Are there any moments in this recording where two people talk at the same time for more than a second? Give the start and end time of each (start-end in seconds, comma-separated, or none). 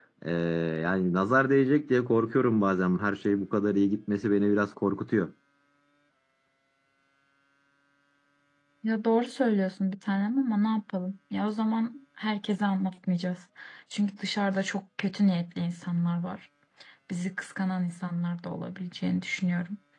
none